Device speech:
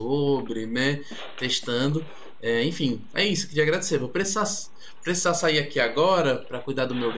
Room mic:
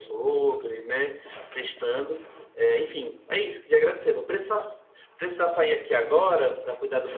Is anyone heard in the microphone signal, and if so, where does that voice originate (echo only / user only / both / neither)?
echo only